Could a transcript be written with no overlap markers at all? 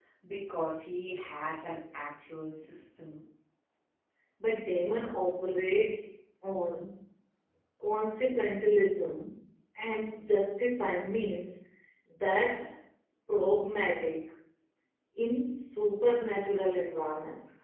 Yes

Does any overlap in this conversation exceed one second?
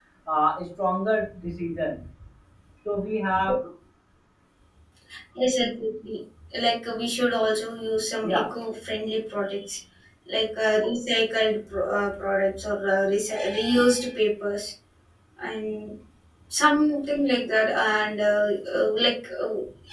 No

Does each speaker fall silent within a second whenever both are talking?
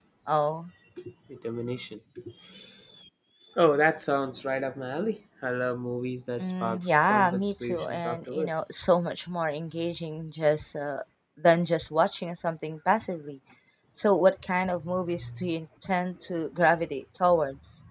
No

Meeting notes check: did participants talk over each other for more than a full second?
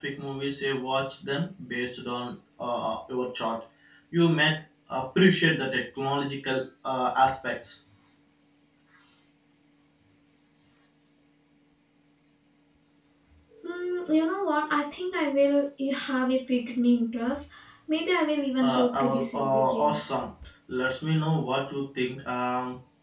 Yes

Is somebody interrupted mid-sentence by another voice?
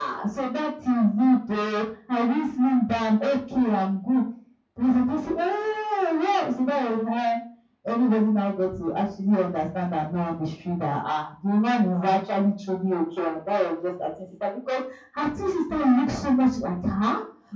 No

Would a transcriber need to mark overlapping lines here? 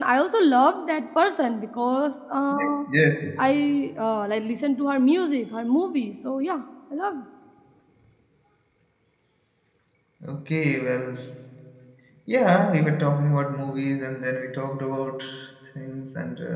No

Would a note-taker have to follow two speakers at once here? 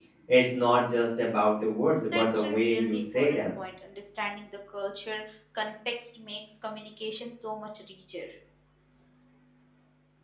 Yes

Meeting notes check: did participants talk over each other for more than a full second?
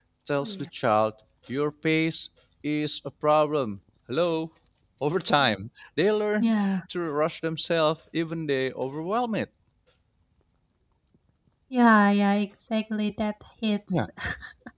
No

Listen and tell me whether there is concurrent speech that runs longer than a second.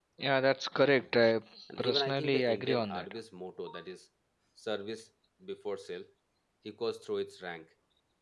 Yes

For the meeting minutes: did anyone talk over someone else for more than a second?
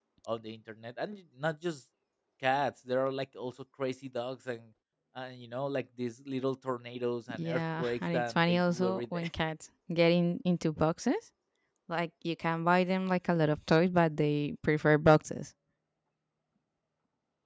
Yes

